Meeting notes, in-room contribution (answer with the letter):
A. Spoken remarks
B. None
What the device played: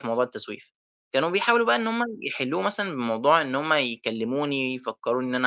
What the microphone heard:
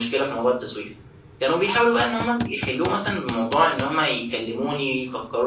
B